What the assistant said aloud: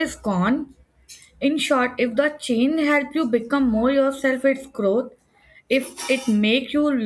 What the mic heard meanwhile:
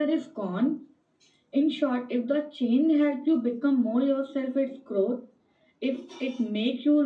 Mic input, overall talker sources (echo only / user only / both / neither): echo only